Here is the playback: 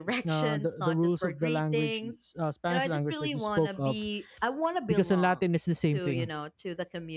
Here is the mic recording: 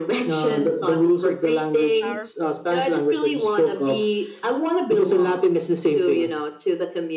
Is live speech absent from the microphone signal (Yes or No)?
No